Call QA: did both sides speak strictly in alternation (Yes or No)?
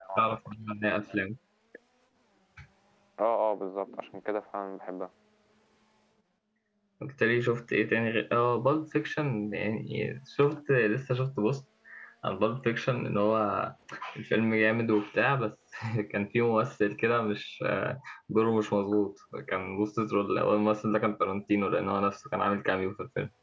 Yes